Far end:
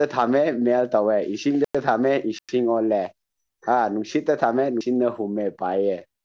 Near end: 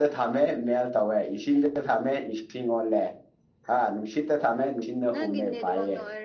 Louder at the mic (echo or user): echo